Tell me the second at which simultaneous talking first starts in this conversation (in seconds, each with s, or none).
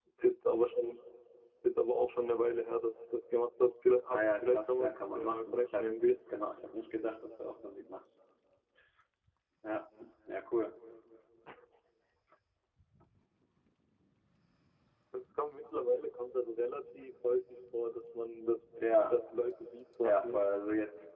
4.1 s